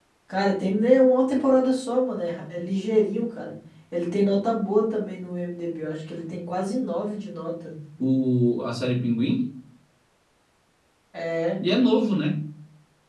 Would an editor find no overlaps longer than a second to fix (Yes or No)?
Yes